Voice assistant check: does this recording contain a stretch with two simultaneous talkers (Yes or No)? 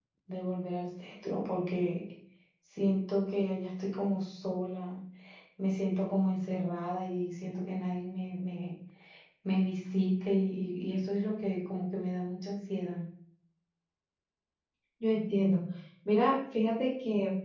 No